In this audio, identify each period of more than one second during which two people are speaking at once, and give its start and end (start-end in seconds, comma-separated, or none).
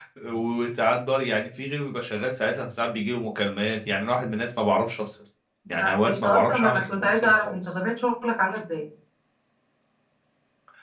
5.8-7.8